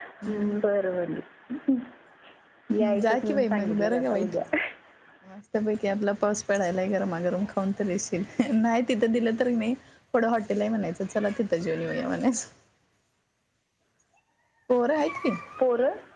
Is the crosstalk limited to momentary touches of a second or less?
No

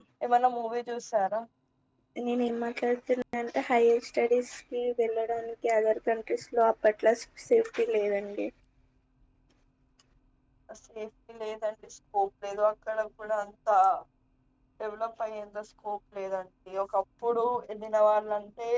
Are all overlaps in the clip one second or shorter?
Yes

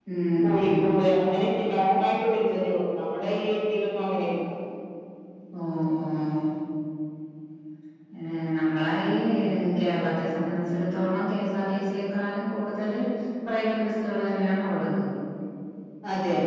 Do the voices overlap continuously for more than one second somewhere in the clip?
No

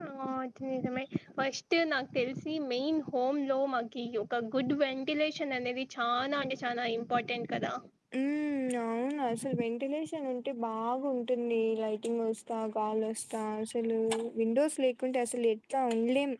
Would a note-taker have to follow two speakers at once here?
No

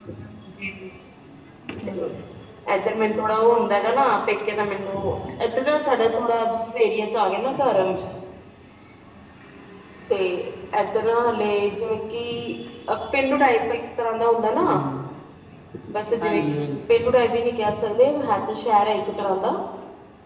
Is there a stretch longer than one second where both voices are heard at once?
No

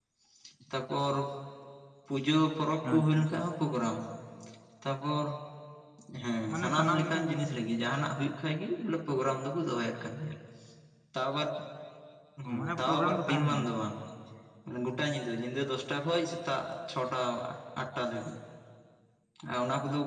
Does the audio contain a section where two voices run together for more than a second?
Yes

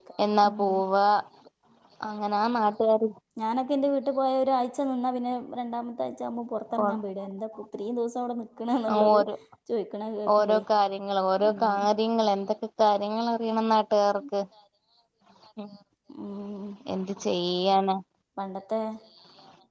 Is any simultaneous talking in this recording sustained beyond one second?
No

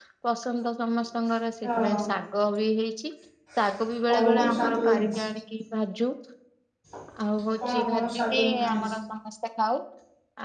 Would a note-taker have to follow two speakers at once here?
Yes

